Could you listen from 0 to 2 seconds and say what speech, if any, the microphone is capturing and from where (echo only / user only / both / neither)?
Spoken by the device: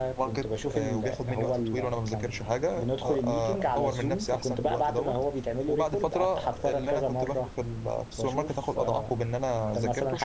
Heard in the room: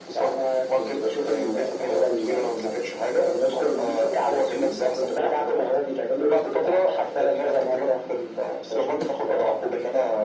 echo only